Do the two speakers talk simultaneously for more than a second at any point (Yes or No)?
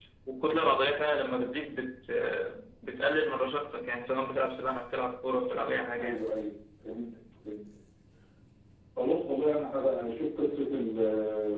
No